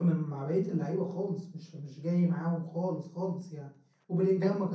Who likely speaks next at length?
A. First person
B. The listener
A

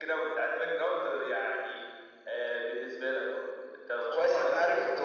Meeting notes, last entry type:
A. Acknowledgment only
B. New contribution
B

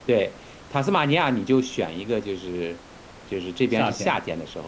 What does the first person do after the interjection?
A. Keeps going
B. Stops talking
A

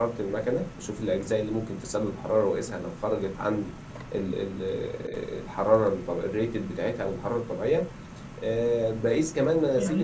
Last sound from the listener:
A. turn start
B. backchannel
A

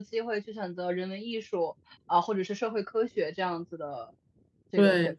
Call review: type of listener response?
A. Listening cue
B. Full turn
B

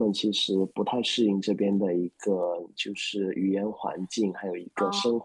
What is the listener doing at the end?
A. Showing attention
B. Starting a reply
A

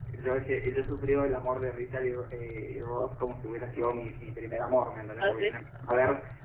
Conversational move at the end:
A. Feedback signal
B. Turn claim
A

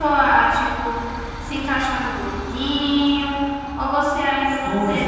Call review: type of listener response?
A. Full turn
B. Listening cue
A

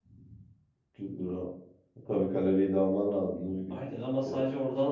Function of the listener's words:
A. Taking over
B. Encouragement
A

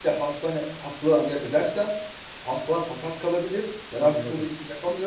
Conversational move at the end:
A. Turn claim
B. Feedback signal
B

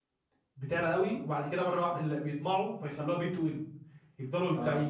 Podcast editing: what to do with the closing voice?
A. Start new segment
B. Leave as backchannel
B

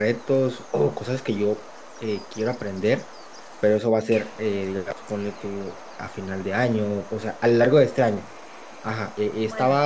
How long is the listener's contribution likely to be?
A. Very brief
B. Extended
A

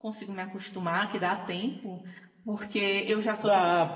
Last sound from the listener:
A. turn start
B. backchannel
B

